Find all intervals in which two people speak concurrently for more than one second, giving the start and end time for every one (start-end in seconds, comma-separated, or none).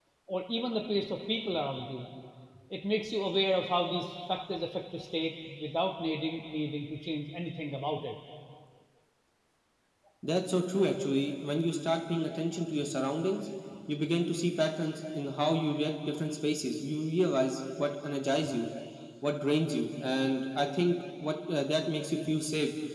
none